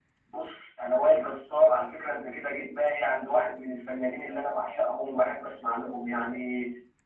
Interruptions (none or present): present